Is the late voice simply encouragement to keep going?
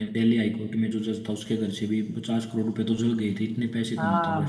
No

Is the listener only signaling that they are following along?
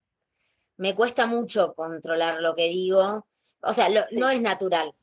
Yes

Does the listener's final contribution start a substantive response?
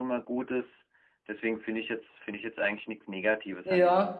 Yes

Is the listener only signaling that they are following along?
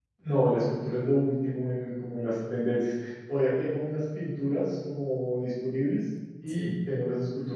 Yes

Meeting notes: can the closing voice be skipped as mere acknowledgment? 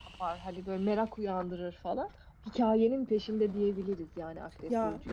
No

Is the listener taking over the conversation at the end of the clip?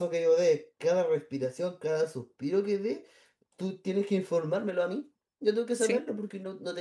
No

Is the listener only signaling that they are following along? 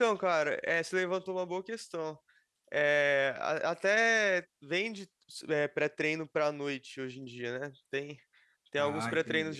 Yes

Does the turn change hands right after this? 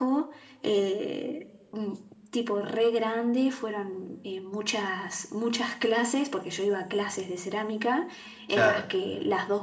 No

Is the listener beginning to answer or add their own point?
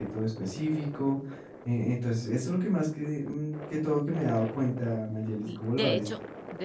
Yes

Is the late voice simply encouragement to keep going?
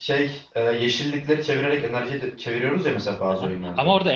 No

